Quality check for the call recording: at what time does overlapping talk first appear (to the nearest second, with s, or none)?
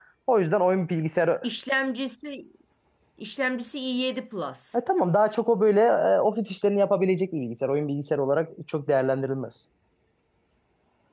none